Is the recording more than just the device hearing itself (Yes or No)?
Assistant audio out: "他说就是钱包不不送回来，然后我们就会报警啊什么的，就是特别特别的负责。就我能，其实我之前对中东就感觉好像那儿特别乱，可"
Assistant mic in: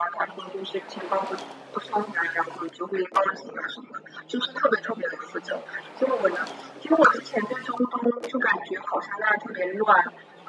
No